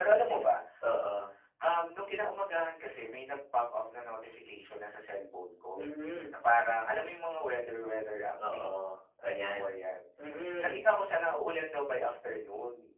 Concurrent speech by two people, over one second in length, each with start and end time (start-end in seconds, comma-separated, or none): none